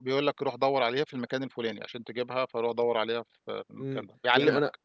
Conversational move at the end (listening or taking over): taking over